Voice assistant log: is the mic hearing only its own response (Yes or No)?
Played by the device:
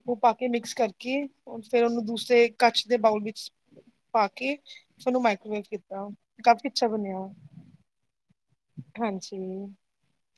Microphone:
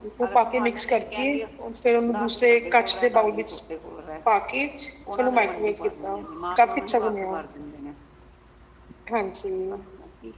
No